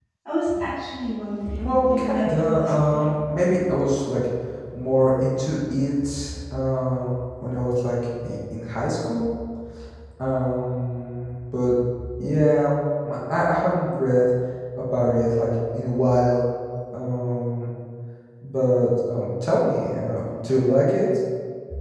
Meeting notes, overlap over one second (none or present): present